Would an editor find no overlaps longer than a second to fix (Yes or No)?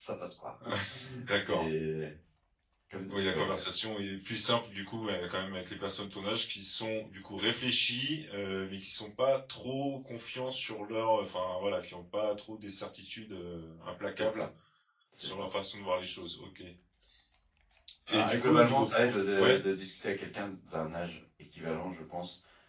No